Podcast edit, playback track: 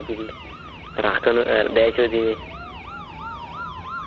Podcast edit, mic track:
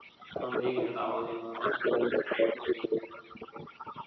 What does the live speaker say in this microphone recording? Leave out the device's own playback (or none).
हां एक मिनिट आवाज येईना झालाय